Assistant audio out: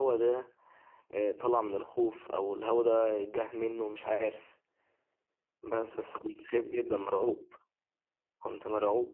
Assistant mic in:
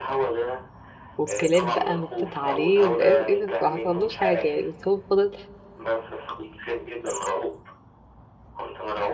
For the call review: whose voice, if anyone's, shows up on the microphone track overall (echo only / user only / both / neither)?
both